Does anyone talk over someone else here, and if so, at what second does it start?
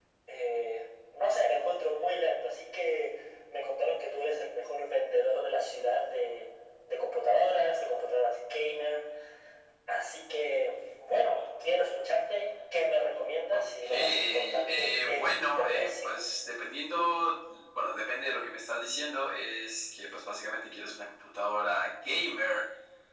13.5 s

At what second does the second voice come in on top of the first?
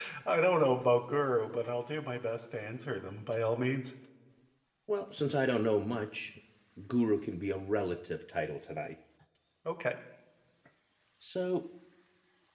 none

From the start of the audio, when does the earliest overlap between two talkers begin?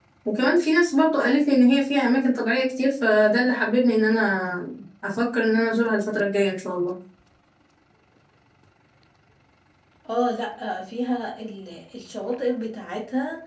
none

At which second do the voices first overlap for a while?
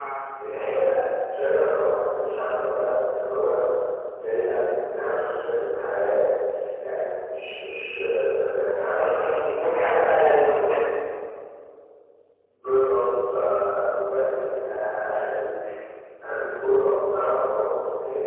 9.0 s

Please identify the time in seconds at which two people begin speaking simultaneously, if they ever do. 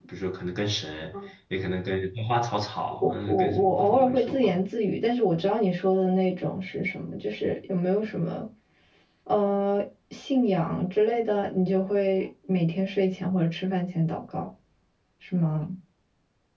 3.0 s

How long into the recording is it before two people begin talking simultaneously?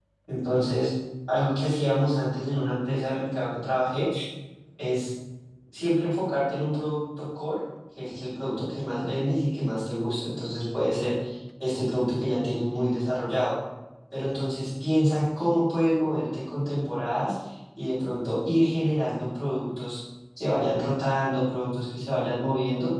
none

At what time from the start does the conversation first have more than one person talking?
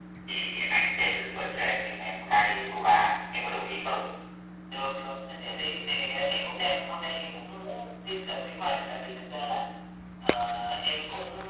none

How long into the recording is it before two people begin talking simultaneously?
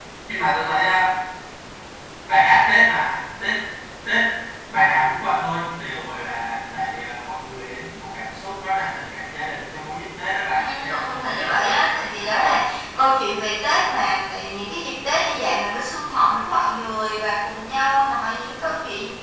10.5 s

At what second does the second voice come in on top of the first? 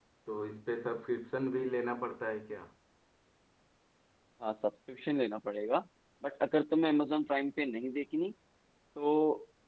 none

